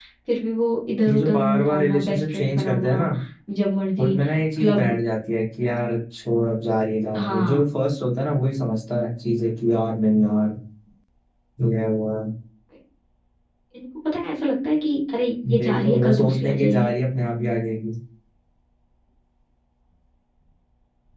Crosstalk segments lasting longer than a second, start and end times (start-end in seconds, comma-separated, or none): 1.1-3.0, 15.5-16.9